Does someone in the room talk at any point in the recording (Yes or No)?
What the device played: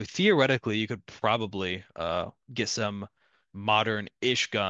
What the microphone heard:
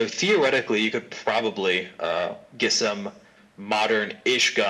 No